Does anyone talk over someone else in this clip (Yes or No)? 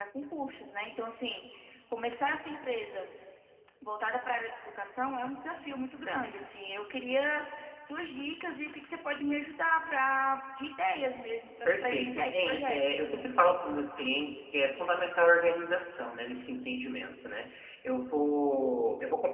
Yes